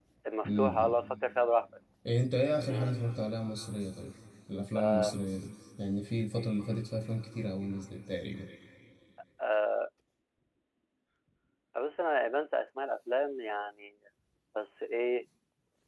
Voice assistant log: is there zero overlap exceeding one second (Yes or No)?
Yes